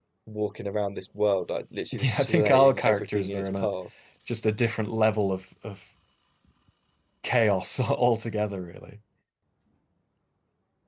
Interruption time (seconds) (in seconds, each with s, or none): 1.9 s